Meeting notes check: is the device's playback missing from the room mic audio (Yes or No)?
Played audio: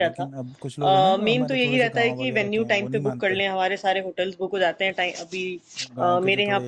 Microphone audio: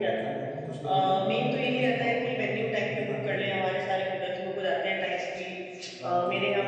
No